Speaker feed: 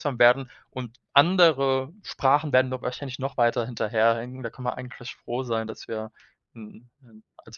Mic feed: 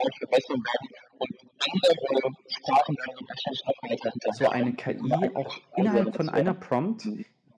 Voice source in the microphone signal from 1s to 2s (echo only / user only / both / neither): echo only